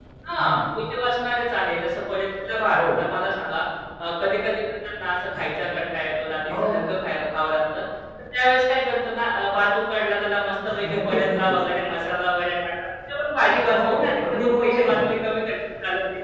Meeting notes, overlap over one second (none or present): present